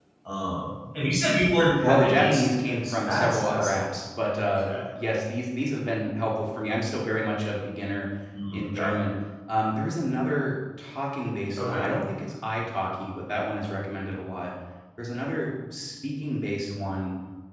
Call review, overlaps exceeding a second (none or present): present